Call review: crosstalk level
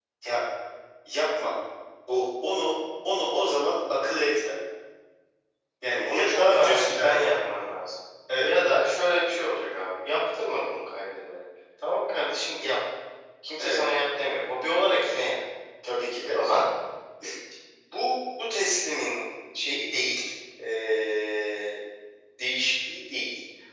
present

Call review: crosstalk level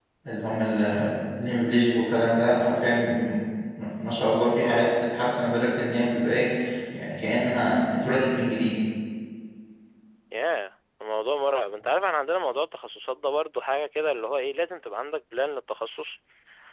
none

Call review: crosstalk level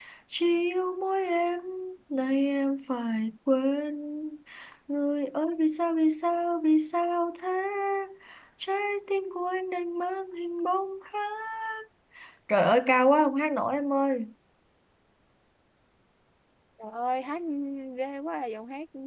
none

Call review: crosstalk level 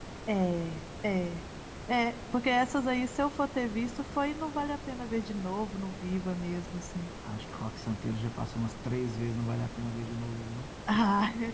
none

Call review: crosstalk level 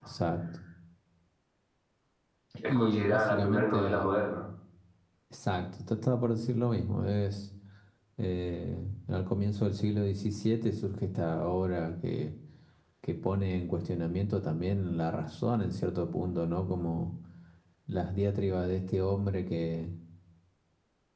present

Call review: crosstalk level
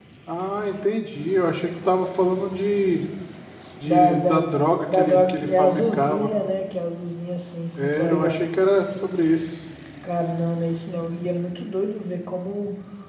present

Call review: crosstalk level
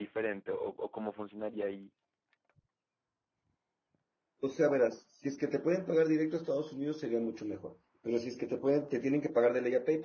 none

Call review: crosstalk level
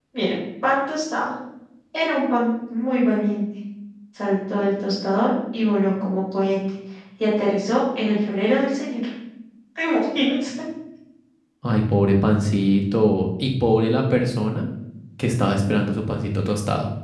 none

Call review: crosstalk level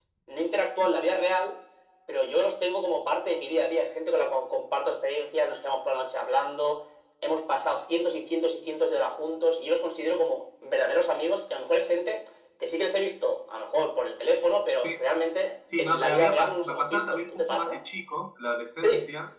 present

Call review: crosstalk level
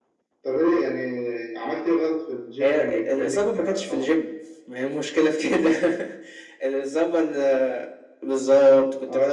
present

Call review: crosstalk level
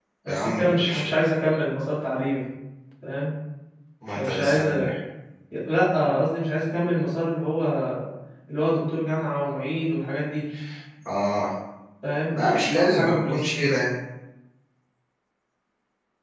present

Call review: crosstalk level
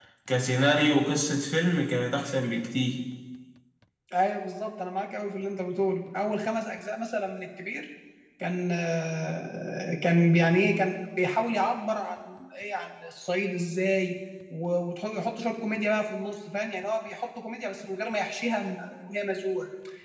none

